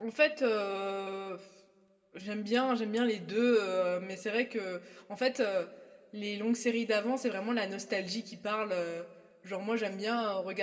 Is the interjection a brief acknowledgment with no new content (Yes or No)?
Yes